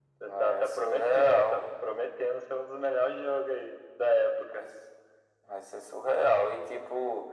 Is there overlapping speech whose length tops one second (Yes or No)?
Yes